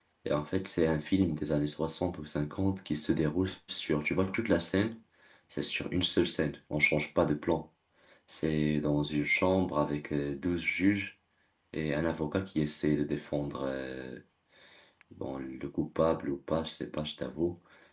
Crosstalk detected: No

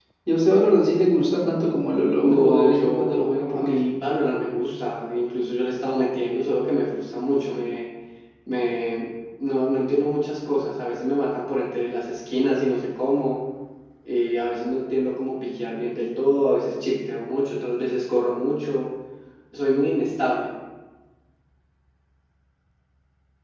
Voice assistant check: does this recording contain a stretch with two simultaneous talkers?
Yes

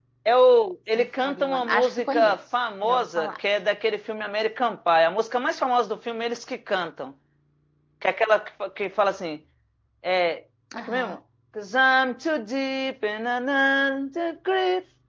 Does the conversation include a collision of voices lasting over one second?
Yes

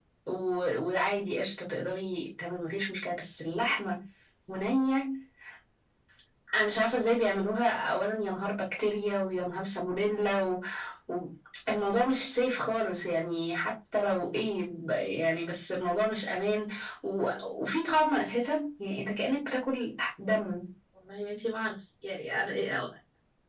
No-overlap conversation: Yes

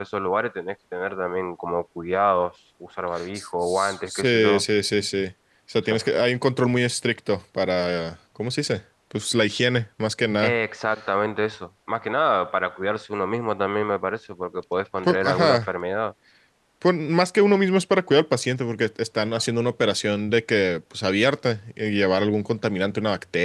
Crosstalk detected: Yes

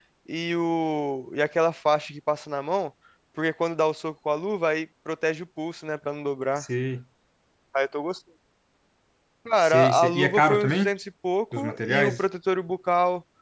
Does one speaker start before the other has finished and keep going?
Yes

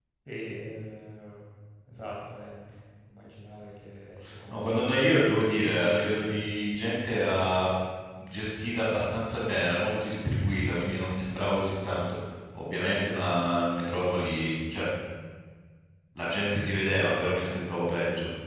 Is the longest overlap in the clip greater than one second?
No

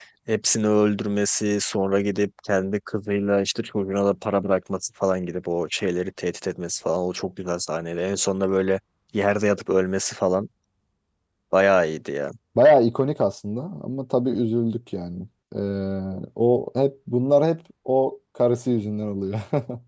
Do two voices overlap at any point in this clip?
No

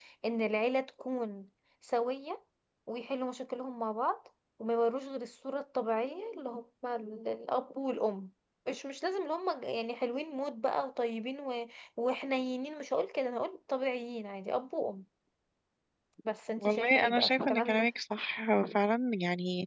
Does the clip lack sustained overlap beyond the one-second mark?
No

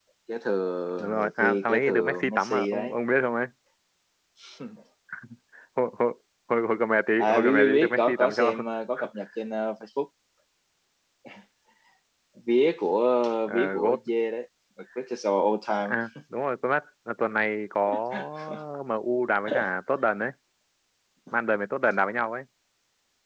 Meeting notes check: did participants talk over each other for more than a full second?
Yes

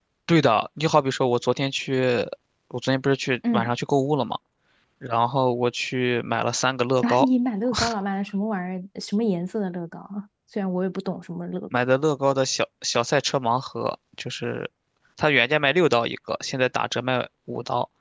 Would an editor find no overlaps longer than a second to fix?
Yes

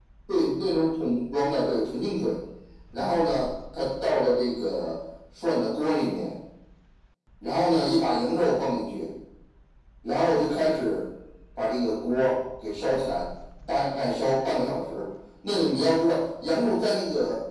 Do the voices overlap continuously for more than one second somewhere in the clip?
No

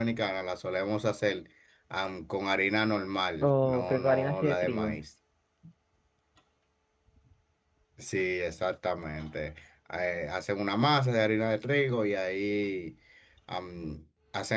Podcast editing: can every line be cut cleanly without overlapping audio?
No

